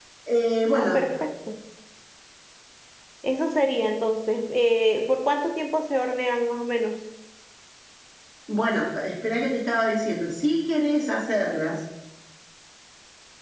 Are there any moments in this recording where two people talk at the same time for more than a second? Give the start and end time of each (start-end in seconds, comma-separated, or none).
none